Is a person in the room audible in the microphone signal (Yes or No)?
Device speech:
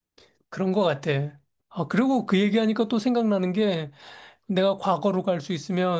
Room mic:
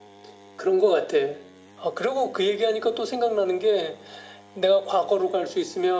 No